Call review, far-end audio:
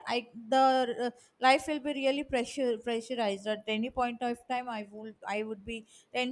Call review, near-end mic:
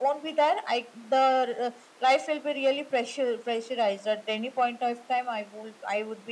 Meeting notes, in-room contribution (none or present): none